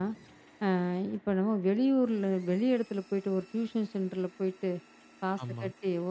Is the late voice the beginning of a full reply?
No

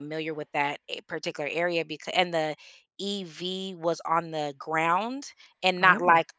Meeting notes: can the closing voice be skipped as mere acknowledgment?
Yes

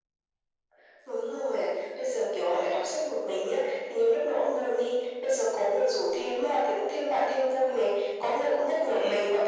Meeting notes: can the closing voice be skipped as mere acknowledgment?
Yes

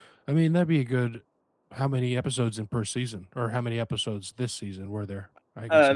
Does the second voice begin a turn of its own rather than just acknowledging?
Yes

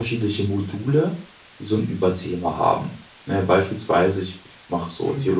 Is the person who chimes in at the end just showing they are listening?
Yes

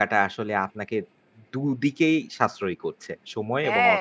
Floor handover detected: Yes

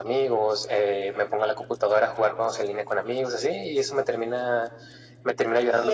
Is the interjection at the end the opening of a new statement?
Yes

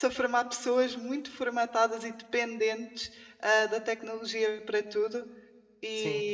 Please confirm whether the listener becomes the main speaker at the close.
No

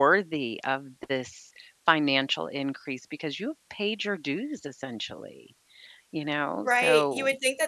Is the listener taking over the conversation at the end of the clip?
Yes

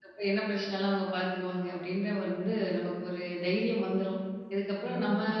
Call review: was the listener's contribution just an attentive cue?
Yes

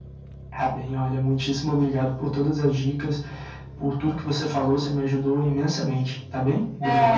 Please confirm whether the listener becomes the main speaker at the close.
Yes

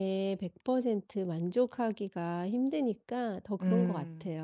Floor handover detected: Yes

